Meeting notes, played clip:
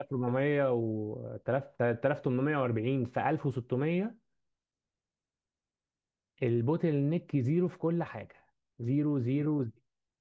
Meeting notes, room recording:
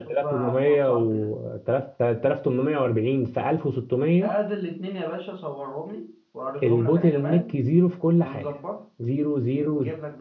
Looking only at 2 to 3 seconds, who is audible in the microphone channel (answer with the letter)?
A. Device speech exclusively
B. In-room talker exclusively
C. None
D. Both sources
A